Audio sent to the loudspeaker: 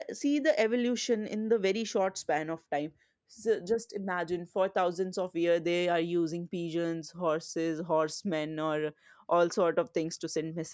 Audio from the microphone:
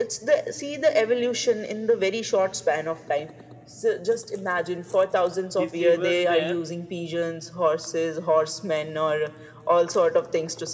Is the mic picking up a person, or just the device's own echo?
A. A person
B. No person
A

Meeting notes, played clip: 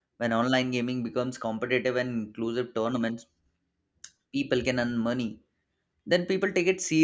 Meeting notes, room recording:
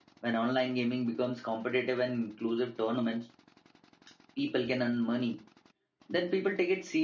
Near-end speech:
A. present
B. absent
B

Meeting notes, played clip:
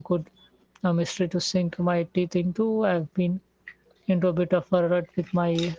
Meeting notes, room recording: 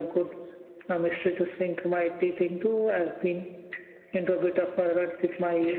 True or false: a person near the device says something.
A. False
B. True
A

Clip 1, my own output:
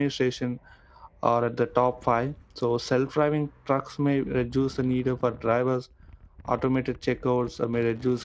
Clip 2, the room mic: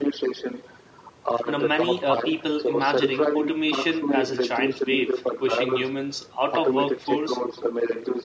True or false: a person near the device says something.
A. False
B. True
B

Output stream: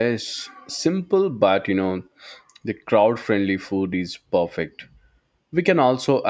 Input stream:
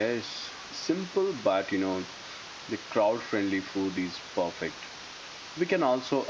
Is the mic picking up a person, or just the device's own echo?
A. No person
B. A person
A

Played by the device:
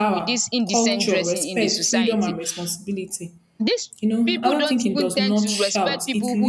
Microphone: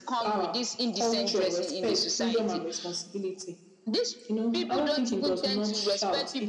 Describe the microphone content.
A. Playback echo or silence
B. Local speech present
A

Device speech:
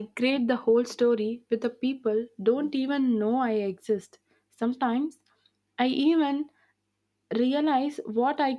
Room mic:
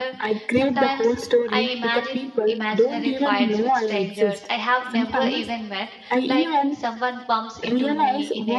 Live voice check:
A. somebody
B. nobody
A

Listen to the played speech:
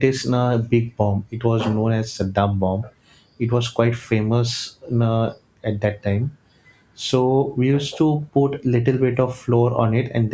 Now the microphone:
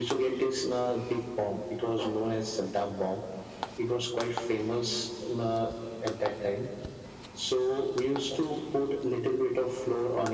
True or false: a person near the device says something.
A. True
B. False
B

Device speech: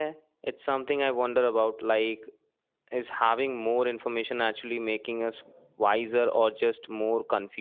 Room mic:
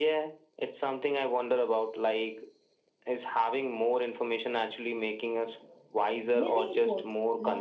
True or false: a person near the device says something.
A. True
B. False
A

